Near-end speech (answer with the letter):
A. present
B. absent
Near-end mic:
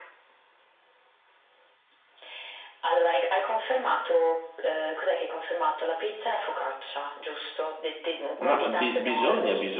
A